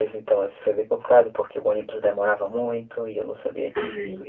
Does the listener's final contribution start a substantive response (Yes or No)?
No